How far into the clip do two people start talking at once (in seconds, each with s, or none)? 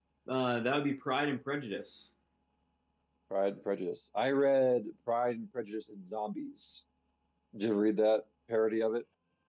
none